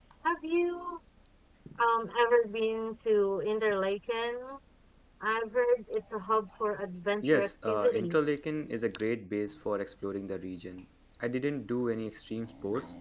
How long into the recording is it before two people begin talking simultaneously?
7.2 s

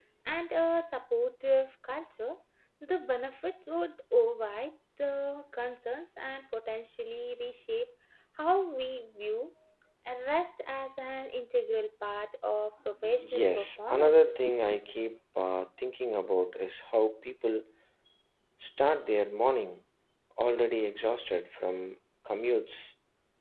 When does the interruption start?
13.2 s

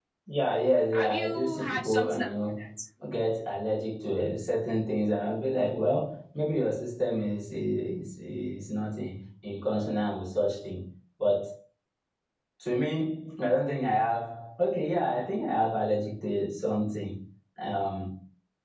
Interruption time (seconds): 0.9 s

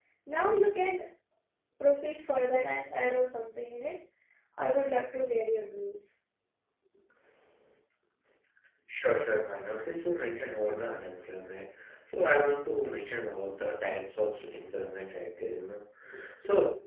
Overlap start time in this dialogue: none

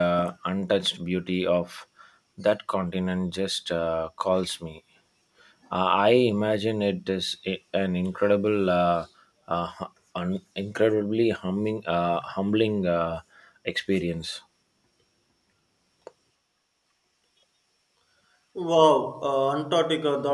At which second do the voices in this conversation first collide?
none

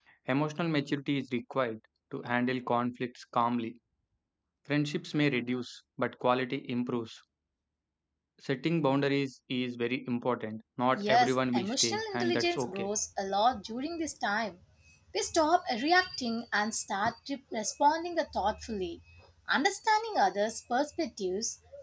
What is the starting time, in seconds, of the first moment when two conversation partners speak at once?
10.9 s

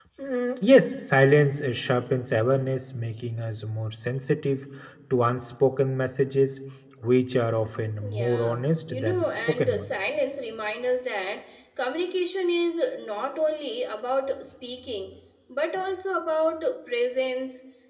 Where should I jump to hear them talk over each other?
8.0 s

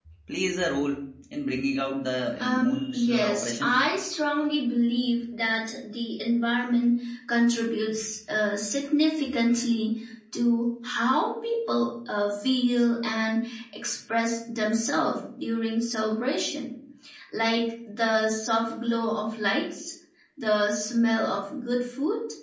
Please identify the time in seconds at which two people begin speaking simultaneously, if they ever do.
2.4 s

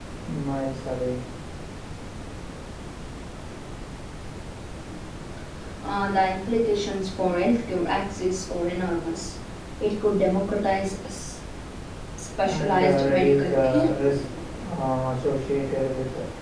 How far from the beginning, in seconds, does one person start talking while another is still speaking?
12.5 s

